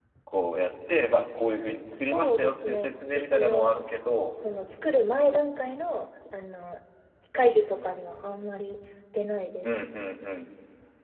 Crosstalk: present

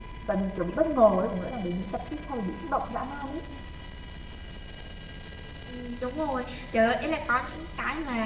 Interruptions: none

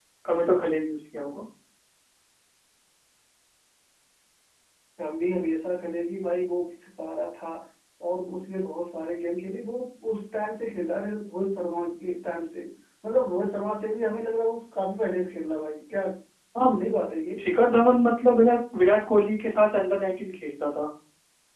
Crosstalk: none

